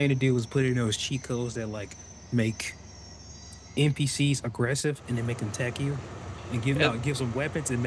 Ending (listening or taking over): listening